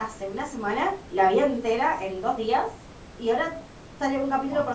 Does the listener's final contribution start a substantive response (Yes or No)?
No